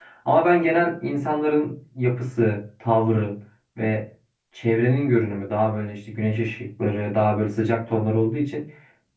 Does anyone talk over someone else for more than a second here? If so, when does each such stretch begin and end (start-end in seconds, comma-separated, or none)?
none